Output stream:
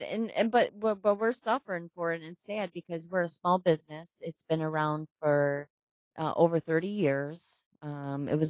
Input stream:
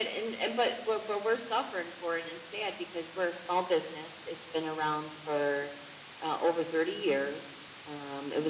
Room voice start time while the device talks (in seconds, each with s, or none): none